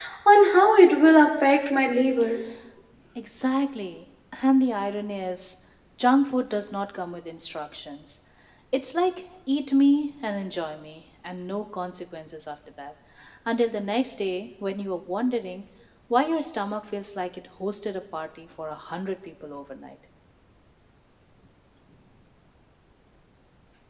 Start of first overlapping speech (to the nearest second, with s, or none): none